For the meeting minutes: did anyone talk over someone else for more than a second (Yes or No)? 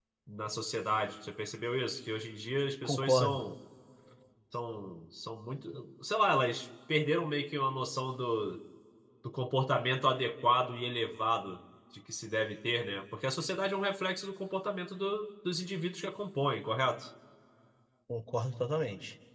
No